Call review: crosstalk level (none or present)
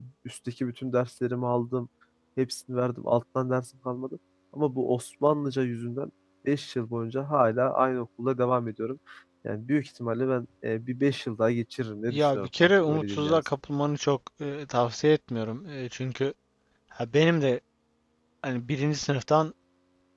present